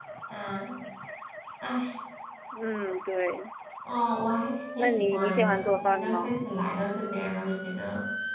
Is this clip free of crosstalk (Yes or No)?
No